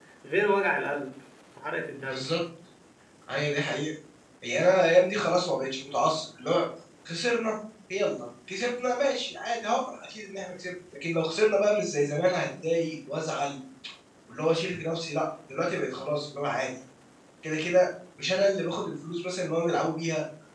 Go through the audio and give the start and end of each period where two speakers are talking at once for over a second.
none

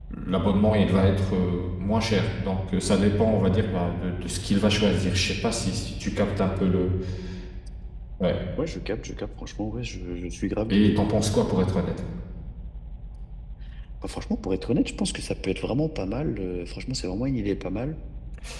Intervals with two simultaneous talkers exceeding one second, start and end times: none

